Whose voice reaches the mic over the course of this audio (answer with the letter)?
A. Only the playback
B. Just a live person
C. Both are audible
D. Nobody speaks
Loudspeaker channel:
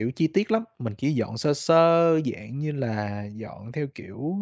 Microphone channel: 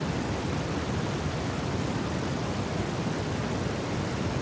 D